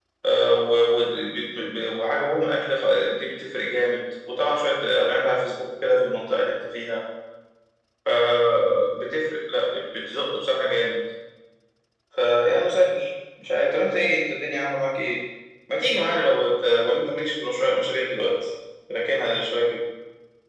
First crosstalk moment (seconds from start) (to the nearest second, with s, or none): none